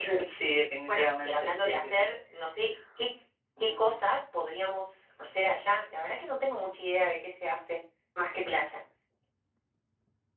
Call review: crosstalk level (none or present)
present